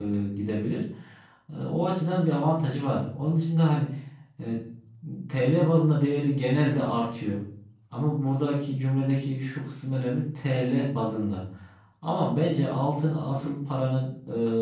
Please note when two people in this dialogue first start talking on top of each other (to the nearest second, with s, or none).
none